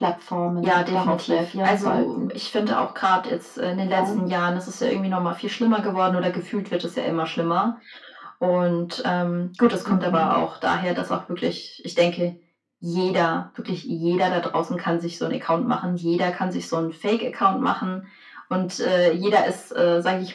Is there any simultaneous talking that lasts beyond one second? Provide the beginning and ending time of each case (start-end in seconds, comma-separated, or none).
0.6-2.3